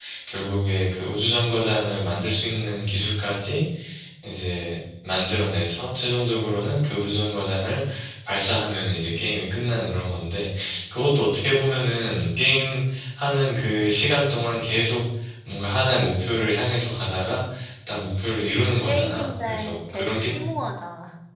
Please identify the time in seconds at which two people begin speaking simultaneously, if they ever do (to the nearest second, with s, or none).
19 s